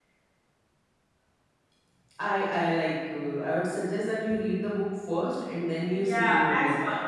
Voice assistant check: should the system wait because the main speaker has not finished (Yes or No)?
No